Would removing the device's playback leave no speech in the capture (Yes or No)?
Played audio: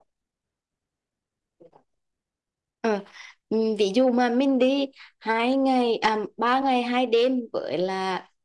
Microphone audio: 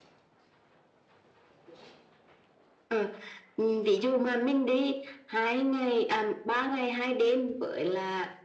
Yes